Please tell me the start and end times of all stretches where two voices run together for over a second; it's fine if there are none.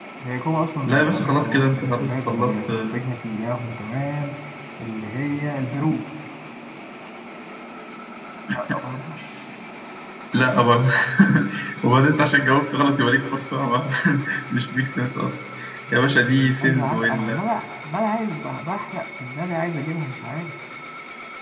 0.9-2.7, 15.9-17.4

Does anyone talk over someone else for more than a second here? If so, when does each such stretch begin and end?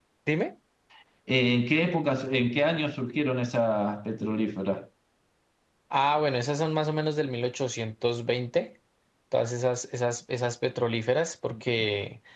none

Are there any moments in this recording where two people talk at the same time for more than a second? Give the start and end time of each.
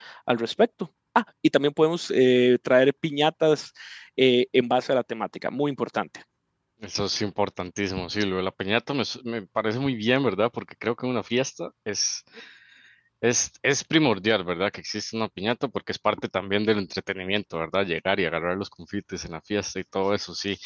none

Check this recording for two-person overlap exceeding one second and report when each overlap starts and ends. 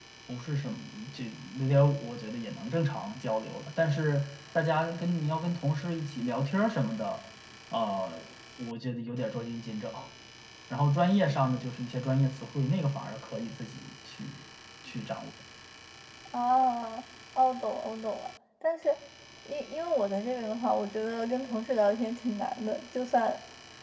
none

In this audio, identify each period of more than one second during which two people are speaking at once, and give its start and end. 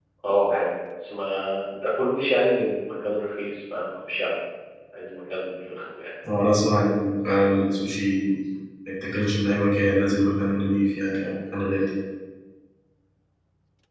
none

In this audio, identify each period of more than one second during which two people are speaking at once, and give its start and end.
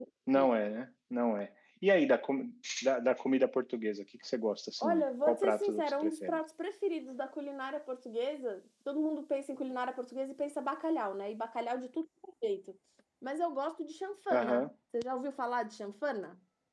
4.8-6.4

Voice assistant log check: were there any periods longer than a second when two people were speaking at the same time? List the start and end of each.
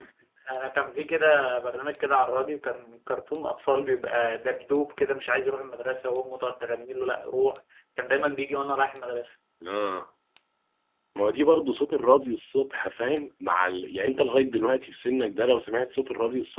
none

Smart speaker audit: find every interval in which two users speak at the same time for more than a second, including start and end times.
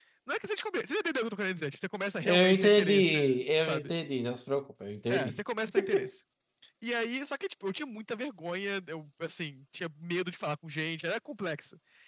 2.2-3.9

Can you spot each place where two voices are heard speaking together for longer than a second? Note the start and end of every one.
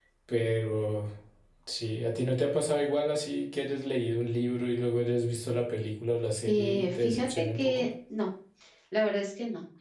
6.5-7.8

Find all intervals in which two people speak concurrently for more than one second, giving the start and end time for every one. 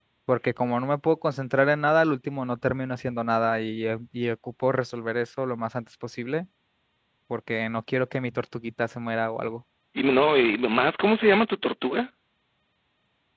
none

